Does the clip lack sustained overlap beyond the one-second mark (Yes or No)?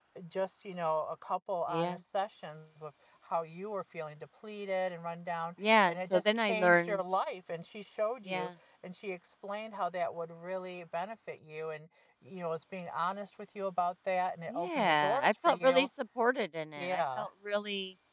No